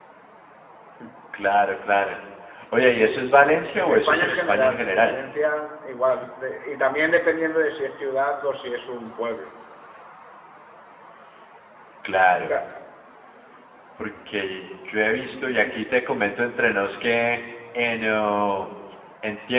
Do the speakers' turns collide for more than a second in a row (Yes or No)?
Yes